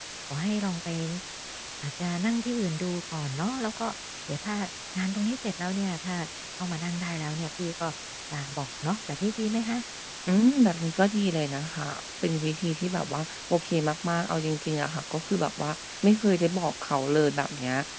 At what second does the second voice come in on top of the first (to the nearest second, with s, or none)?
none